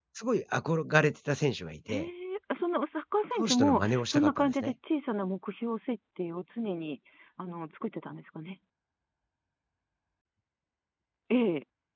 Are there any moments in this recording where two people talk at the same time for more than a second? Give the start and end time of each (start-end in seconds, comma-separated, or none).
3.3-4.7